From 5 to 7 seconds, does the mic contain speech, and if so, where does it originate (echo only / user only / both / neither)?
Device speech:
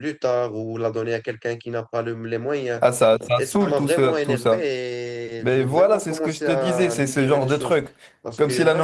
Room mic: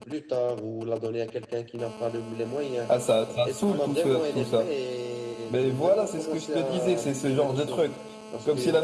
echo only